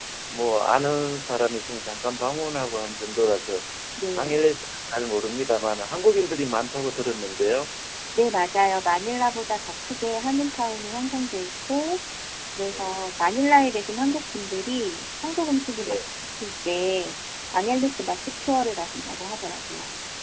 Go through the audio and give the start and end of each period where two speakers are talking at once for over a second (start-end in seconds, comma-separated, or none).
none